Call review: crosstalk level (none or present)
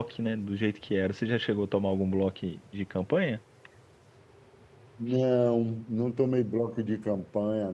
none